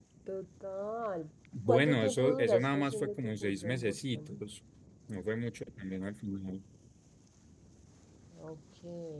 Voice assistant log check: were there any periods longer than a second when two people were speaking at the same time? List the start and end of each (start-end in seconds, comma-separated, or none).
1.7-4.4